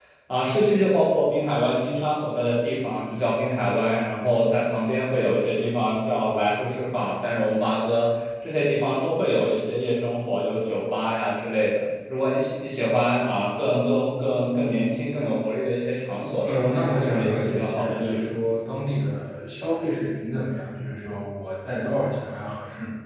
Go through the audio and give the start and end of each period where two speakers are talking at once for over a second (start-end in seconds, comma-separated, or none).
16.4-18.2